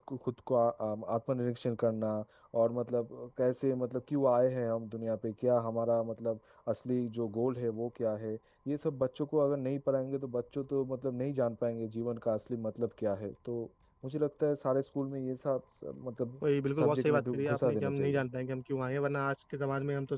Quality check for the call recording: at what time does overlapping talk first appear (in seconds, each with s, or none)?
16.8 s